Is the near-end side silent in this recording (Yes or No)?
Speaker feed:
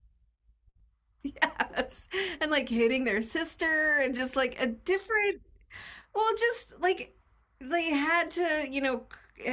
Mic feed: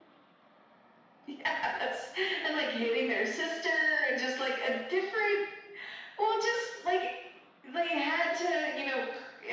Yes